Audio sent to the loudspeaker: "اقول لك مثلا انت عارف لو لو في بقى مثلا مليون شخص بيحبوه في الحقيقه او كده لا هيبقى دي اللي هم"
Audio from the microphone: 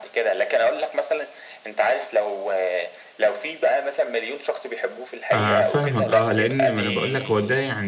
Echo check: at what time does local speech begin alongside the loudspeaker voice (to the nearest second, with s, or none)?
5 s